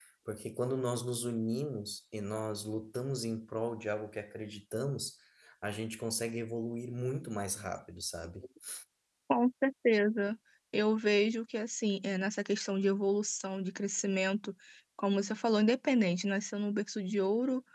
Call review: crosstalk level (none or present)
none